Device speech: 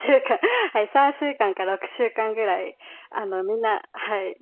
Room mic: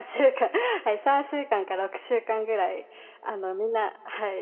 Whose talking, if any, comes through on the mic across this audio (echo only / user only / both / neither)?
echo only